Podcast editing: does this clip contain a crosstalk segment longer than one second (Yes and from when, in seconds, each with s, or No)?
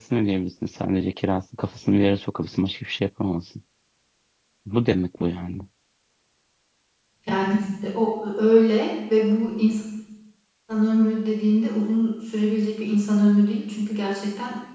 No